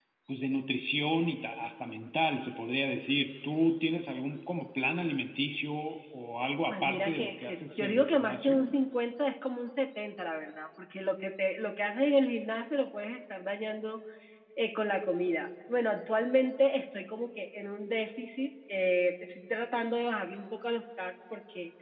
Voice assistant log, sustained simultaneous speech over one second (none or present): present